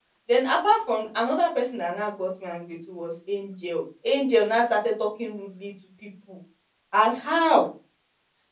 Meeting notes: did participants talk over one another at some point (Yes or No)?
No